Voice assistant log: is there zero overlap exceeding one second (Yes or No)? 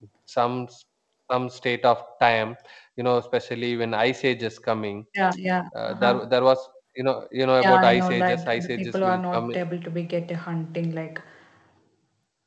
No